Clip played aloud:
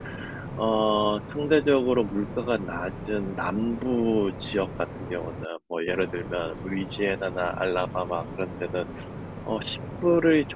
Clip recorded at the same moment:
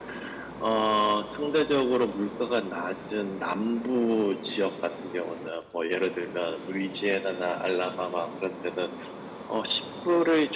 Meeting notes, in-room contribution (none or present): none